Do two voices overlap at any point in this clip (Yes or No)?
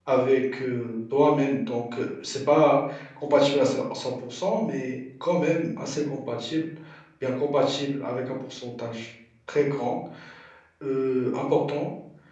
No